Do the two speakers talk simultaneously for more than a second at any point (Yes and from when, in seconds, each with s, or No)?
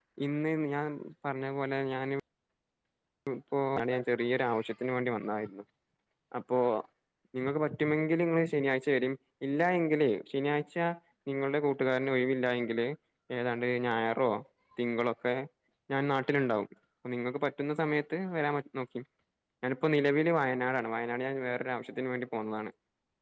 No